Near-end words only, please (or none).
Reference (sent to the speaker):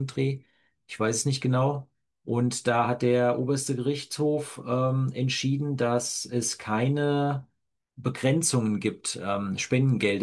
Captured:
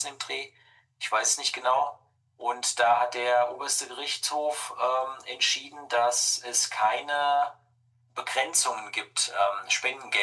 none